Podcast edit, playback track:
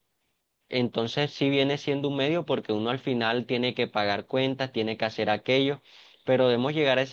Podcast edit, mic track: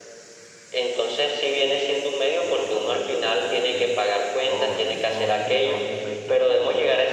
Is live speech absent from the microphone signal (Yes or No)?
No